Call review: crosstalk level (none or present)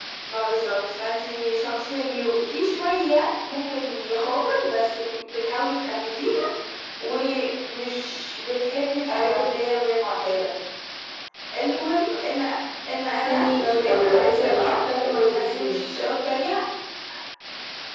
present